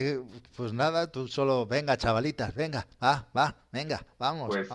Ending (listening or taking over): taking over